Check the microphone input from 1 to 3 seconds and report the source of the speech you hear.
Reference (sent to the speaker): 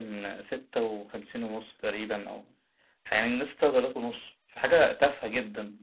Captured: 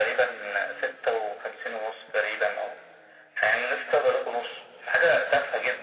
echo only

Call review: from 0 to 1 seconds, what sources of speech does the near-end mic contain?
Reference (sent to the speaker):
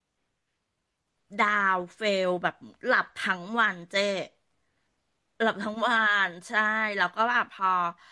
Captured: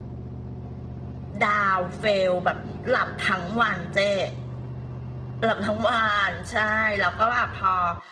neither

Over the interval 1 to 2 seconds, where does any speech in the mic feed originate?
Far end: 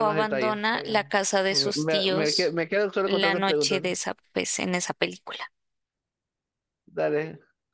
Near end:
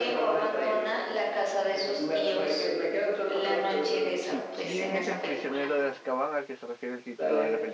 echo only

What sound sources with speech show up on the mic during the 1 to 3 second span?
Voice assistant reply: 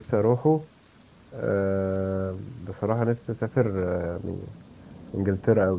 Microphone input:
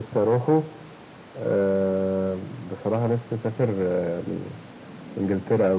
echo only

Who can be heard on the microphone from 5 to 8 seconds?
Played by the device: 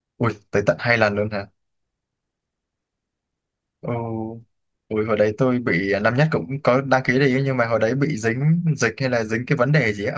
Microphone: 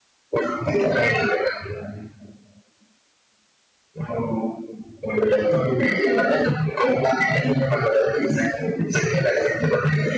echo only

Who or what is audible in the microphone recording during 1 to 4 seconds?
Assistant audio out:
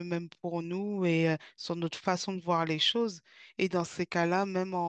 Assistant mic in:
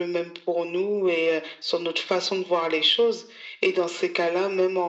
echo only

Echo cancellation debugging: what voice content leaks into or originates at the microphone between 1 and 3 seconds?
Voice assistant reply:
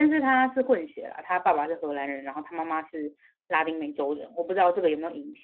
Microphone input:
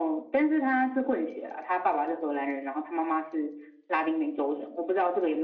echo only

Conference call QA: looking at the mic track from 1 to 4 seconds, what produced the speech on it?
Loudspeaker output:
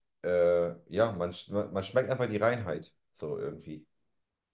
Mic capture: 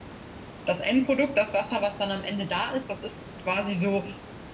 user only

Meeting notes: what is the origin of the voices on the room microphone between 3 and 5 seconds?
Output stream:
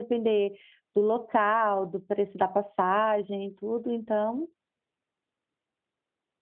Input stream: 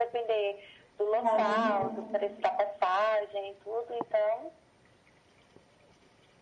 echo only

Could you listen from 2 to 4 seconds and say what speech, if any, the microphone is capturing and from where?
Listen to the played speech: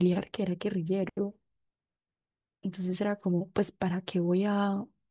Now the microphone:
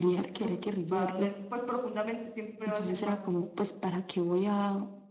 both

